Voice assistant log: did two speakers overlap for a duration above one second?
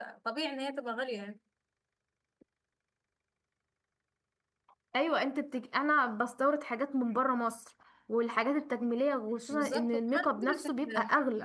Yes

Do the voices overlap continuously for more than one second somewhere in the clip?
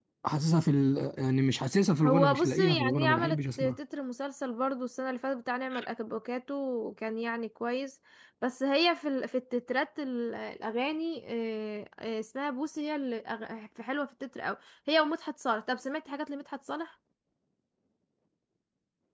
Yes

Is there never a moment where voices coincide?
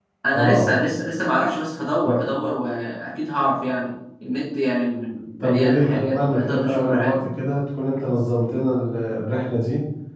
No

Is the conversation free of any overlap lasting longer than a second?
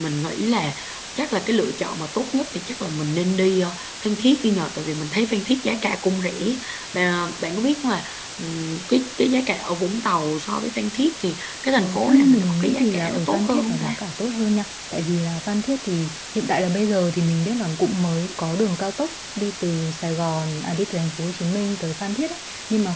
No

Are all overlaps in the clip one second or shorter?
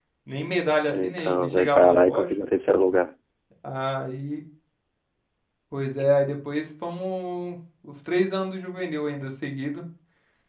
No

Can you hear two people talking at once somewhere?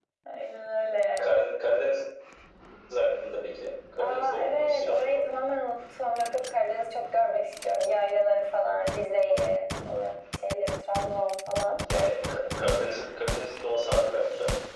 Yes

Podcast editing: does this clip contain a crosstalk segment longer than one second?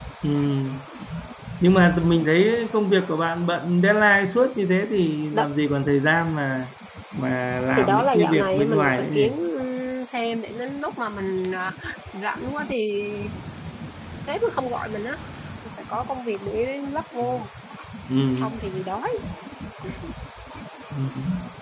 Yes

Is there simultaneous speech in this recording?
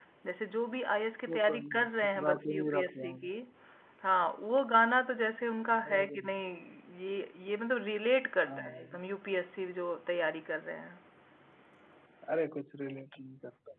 Yes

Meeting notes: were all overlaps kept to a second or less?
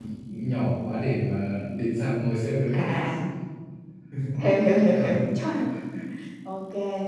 Yes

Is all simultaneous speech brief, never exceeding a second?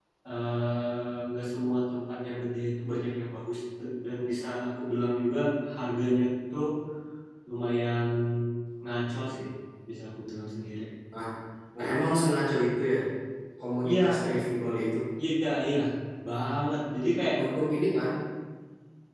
Yes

